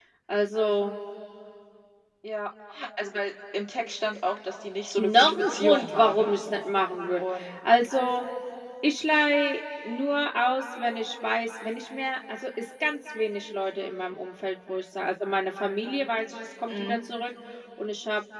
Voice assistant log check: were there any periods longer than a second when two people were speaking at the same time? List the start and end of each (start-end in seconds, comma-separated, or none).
5.0-6.3